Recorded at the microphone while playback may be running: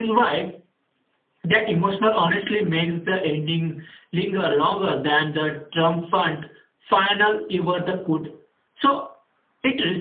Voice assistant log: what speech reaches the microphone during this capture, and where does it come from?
echo only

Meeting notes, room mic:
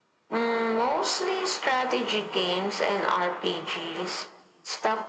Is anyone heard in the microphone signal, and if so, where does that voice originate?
echo only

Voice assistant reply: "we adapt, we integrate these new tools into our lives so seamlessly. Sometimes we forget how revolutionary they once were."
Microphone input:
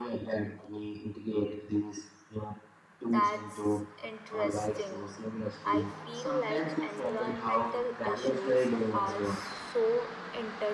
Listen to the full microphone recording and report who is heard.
both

